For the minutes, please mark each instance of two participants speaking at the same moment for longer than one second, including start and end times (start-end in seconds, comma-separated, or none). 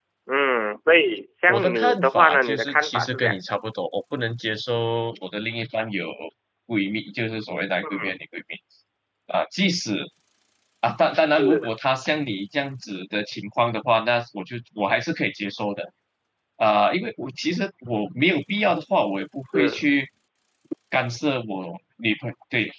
1.5-3.4